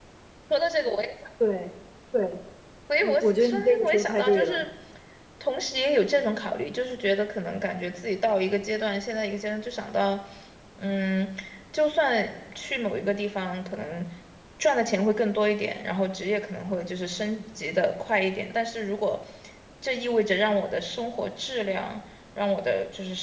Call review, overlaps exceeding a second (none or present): present